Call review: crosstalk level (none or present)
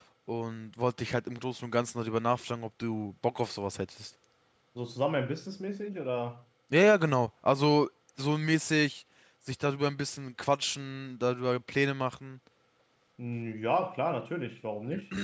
none